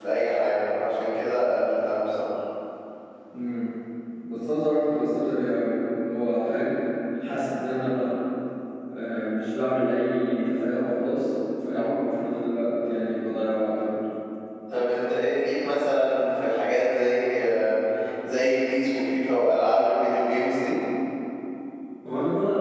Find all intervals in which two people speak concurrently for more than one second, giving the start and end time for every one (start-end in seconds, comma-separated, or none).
none